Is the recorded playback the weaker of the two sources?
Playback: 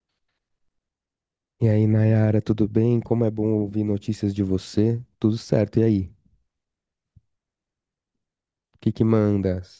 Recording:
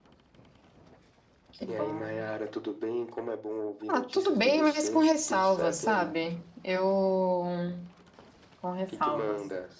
Yes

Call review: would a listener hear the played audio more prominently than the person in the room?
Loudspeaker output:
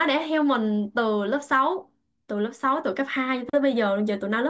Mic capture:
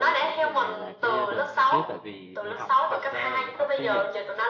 Yes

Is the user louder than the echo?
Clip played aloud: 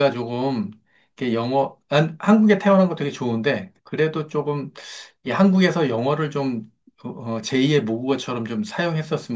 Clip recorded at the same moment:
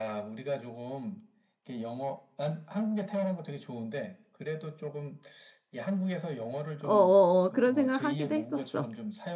Yes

